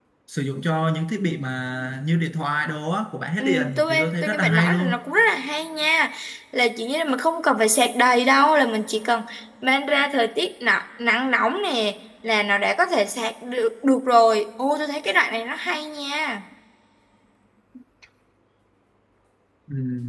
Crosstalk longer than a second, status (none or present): present